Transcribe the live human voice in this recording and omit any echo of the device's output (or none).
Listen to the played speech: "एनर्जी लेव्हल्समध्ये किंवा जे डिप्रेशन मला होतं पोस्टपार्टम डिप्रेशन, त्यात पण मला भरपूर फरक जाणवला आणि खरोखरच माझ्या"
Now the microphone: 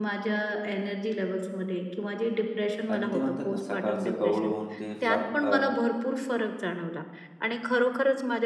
आणि ते म्हणतात ना, सकाळचं कोवळं ऊन ते फार अ,